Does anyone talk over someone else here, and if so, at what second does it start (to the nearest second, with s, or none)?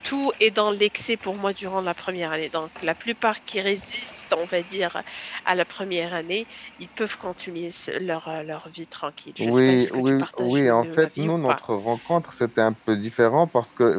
9 s